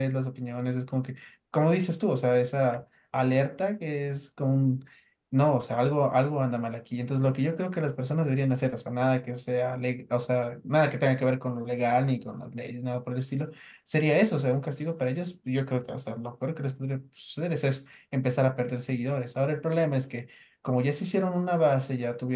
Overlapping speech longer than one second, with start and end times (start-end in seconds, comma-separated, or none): none